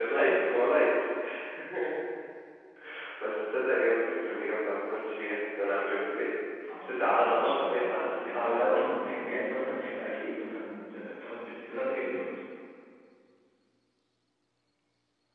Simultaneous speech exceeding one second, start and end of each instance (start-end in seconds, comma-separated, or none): 6.8-8.8